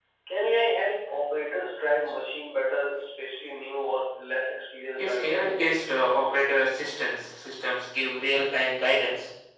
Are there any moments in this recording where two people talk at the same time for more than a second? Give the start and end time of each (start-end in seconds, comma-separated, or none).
none